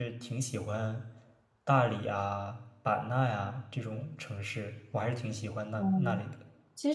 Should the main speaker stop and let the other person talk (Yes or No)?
Yes